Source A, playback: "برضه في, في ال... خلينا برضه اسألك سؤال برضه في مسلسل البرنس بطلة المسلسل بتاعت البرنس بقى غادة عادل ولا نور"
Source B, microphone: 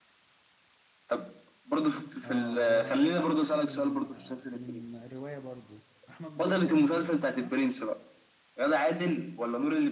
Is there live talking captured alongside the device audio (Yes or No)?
Yes